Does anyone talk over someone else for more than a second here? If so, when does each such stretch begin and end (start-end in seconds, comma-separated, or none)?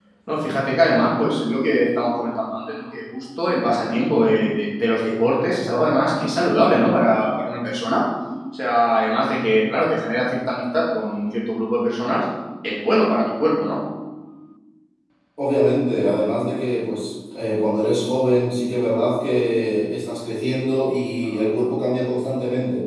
none